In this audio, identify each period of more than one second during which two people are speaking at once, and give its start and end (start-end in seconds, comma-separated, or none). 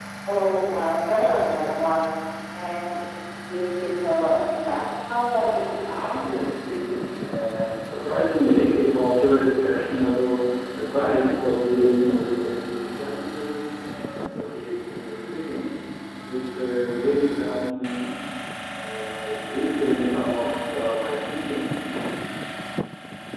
none